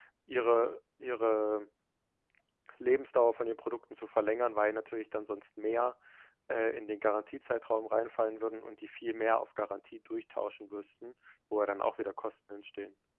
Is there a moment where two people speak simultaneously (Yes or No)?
No